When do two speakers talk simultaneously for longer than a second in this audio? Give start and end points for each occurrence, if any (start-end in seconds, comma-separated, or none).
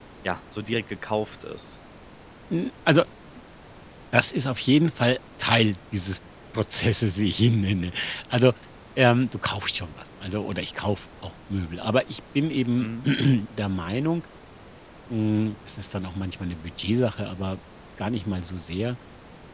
none